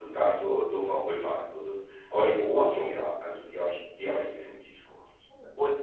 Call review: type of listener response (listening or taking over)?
taking over